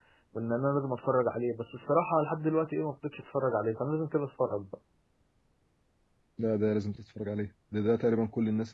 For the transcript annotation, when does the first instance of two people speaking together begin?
none

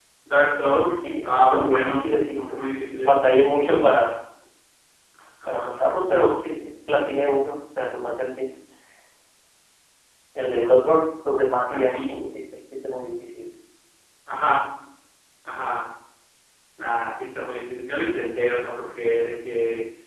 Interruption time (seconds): 1 s

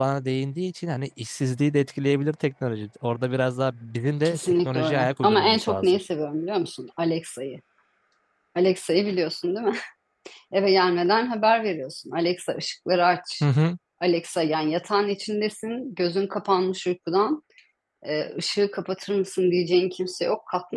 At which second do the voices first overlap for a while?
4 s

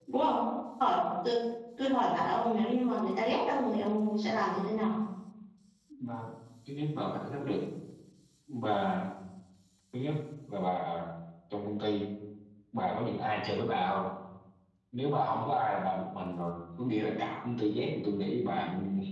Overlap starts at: none

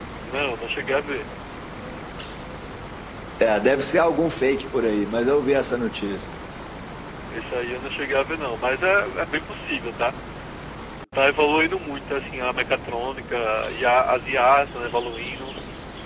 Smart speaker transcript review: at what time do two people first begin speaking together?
none

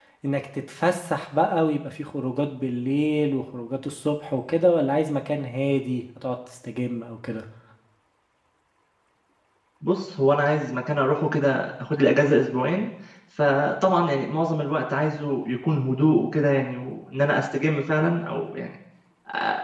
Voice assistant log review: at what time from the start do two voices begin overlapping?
none

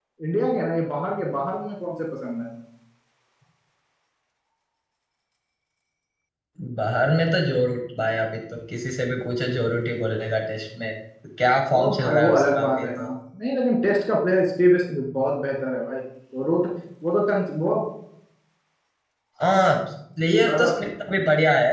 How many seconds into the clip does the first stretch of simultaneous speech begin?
12 s

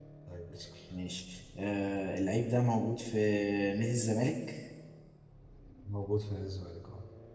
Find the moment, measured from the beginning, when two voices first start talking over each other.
none

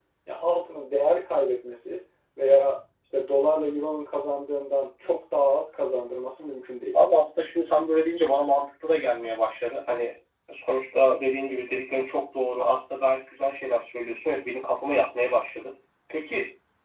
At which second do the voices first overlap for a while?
none

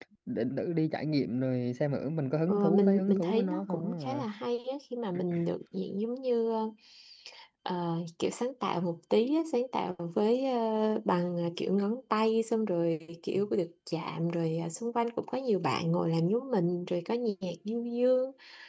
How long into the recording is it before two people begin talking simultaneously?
2 s

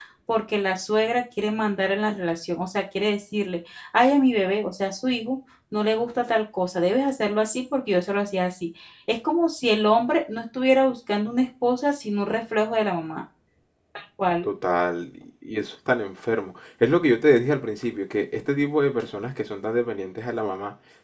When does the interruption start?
none

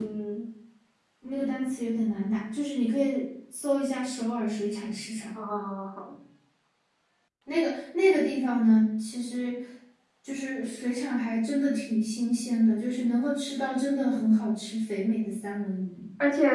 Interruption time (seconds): none

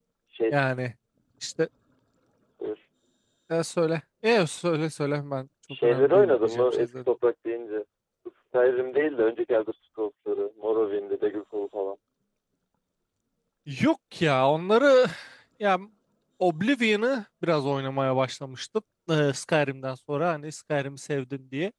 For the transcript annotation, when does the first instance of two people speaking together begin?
6 s

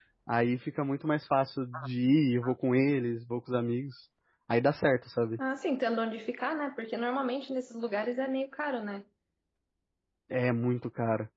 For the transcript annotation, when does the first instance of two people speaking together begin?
none

